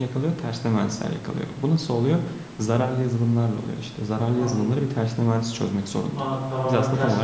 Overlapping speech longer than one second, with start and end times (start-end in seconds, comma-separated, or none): none